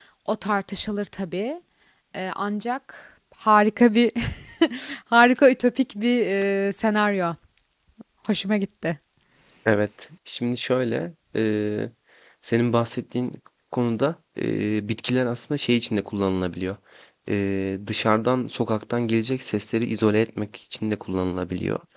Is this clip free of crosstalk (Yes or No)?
Yes